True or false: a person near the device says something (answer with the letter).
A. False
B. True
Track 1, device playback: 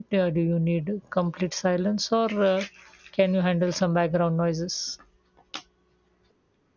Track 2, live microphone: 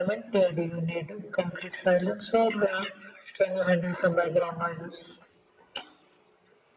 A